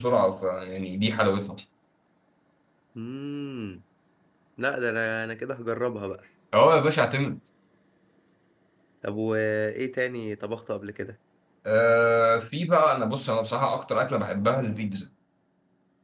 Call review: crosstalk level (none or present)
none